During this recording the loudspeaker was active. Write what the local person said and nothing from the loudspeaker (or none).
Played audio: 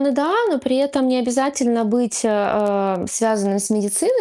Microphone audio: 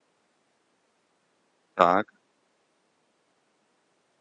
Так.